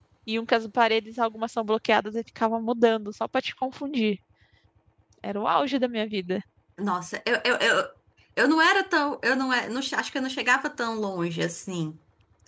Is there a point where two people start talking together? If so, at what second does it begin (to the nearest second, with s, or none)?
none